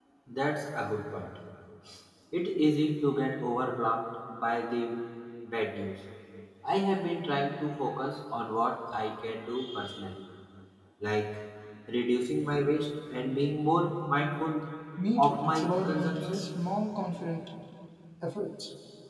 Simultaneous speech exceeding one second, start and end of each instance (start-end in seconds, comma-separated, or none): 15.2-16.4